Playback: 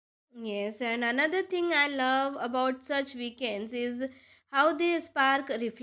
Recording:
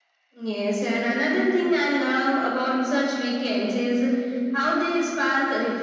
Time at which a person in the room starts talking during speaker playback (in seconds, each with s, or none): none